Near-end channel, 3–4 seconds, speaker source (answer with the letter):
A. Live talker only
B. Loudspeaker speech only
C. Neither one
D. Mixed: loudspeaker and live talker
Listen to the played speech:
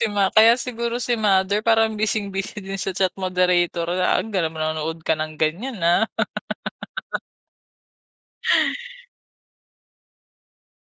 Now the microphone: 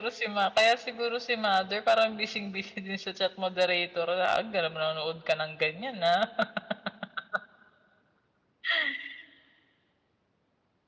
B